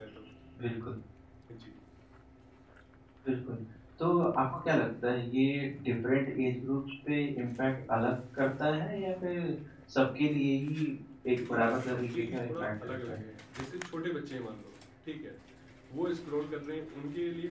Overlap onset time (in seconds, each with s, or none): 11.5 s